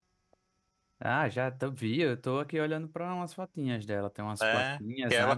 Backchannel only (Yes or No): No